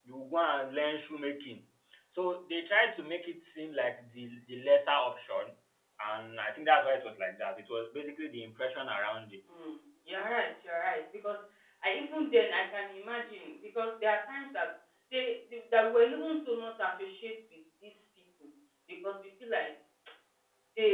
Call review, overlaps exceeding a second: none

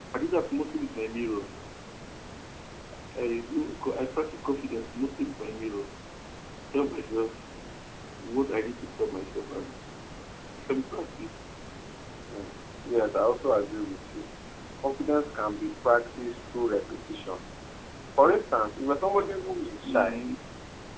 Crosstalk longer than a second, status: none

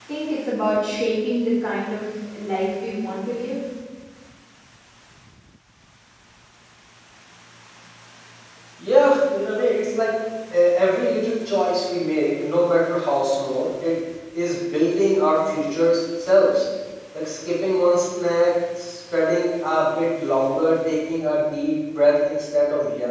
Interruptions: none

